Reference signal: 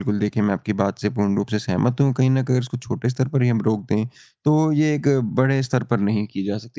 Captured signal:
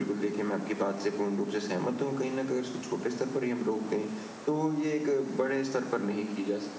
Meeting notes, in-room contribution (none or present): none